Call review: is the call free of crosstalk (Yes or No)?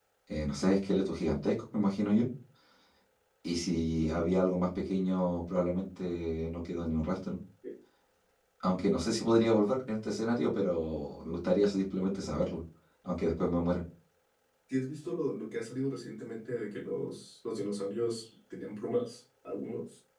Yes